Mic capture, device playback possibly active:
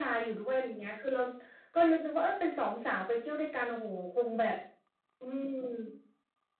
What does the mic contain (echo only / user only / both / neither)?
echo only